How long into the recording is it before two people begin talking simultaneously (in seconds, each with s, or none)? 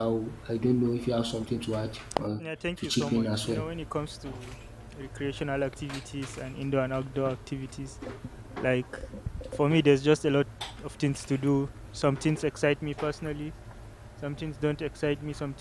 2.4 s